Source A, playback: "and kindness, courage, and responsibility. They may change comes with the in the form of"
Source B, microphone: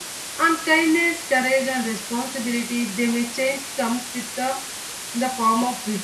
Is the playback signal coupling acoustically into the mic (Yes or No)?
Yes